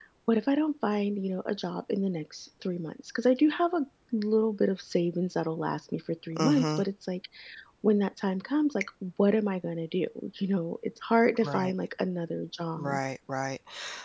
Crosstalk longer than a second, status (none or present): none